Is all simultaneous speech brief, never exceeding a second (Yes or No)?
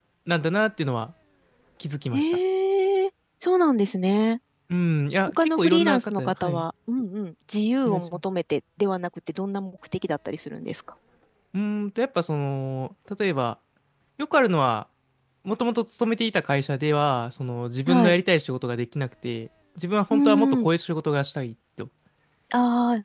No